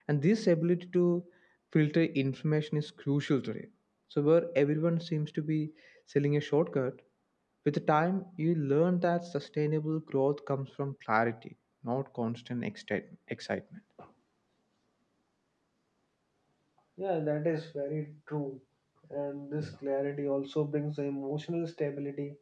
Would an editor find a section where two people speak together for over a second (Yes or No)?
No